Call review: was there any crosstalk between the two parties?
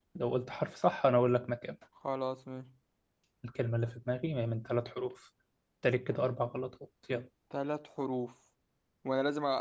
No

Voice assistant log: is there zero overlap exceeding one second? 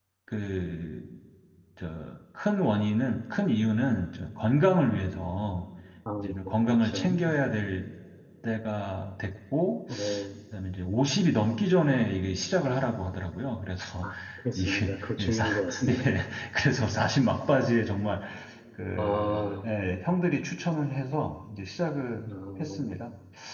No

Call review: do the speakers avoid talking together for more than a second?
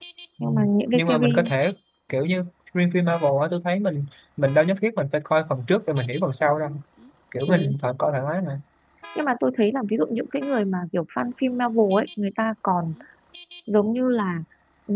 Yes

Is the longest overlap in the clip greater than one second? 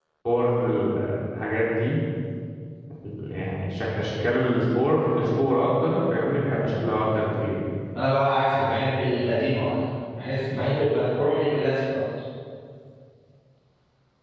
No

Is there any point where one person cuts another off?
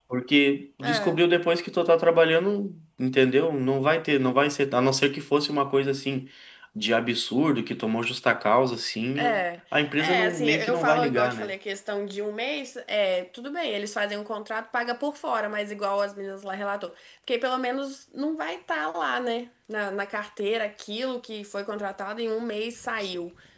Yes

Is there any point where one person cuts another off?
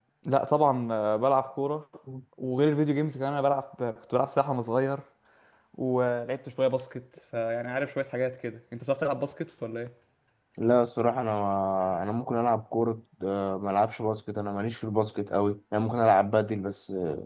No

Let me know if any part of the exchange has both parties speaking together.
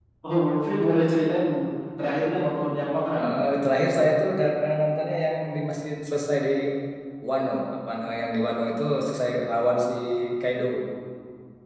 No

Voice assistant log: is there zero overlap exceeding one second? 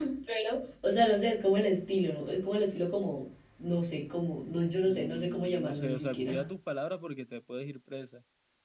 No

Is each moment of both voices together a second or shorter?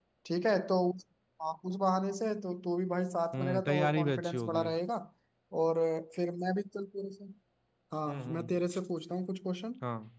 No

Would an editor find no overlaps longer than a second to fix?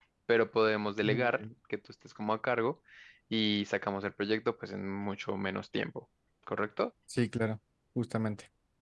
Yes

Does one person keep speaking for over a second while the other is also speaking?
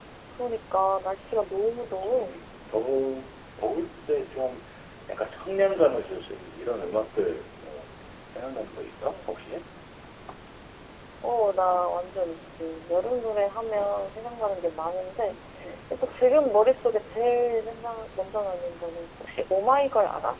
No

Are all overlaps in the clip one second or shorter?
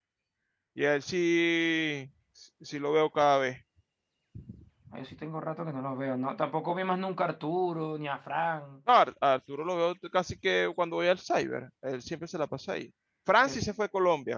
Yes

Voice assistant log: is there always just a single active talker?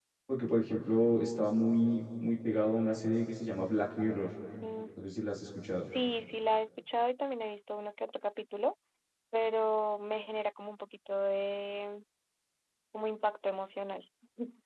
Yes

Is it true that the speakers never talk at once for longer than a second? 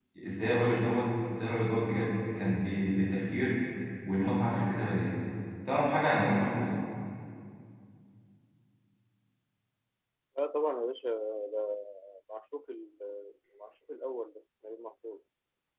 Yes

